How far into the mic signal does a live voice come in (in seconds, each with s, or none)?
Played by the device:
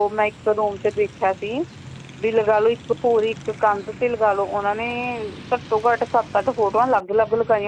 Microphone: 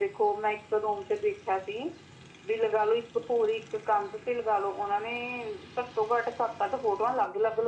none